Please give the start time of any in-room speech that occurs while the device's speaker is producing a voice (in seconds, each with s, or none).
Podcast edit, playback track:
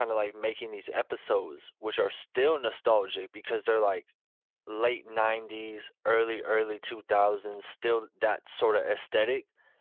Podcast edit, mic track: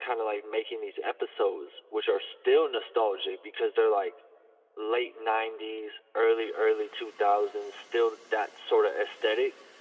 none